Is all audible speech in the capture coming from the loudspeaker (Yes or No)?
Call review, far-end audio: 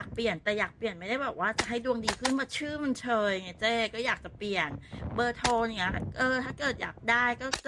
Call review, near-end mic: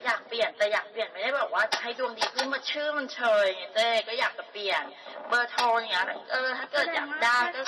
No